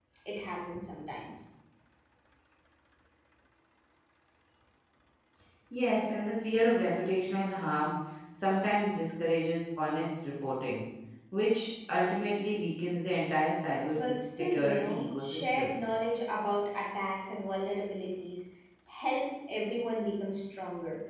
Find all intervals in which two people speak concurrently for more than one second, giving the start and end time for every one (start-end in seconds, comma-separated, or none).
13.9-15.7